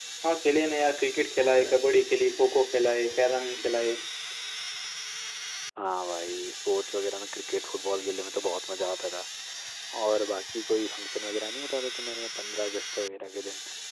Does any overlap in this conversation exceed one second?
No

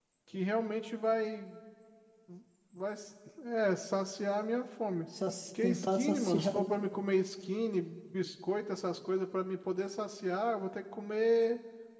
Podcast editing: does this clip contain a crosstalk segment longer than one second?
Yes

